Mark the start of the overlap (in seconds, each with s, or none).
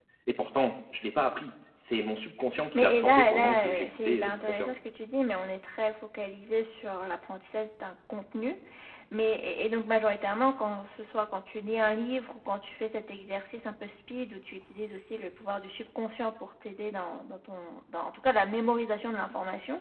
2.6 s